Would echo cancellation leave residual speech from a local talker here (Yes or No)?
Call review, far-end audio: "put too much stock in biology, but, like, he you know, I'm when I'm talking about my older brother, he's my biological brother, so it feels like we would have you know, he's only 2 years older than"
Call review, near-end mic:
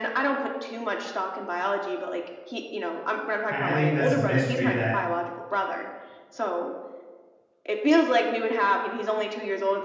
Yes